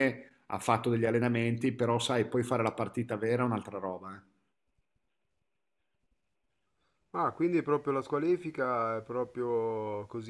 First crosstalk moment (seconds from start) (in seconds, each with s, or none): none